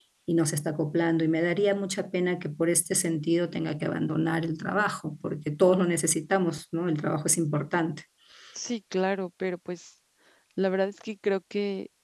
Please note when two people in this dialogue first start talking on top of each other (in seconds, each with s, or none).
none